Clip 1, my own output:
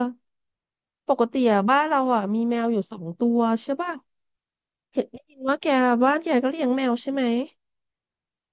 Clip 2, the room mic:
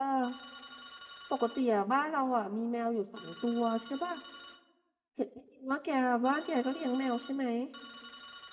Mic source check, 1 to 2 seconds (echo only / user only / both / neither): echo only